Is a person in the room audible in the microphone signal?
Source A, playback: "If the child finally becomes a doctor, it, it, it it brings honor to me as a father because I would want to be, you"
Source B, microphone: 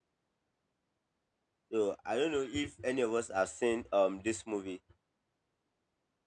Yes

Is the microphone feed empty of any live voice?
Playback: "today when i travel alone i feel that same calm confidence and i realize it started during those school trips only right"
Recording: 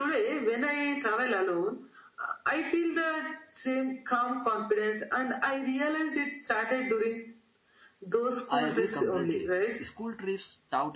No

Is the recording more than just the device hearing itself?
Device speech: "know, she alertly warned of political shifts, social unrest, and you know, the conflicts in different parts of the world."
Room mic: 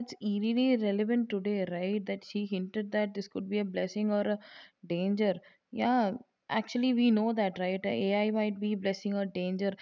Yes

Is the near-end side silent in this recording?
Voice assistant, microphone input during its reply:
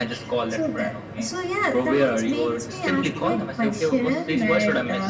Yes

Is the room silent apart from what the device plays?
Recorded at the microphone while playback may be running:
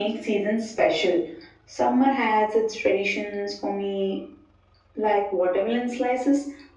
Yes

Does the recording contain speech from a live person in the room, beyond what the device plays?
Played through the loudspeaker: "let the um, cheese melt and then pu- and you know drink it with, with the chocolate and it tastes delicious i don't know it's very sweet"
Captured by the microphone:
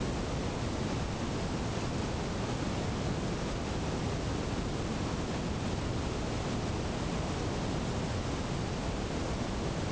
No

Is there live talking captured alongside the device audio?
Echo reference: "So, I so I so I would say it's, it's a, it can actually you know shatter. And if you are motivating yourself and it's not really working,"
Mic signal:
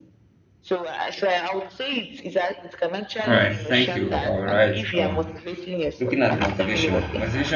Yes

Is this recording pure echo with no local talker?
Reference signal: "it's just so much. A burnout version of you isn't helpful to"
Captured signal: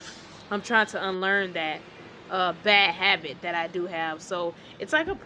No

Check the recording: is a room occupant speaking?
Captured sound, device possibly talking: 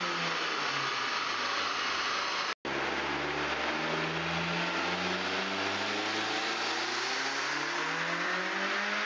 No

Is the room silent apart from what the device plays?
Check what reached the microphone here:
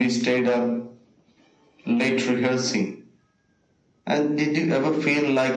Yes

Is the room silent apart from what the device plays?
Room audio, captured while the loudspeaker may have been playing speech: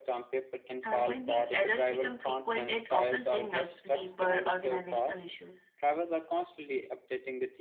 No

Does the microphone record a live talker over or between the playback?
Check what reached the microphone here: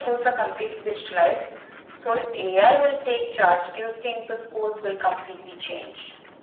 No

